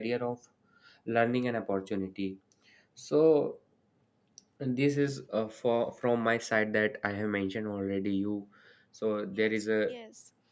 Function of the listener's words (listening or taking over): taking over